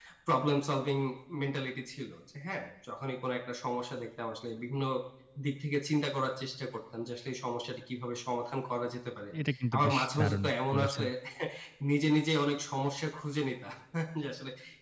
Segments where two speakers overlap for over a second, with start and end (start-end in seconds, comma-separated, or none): 9.7-11.0